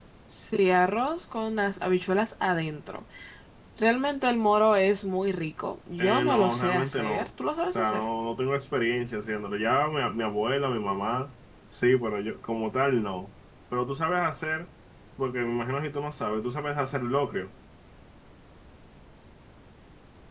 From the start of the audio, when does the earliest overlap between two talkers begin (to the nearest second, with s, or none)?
6 s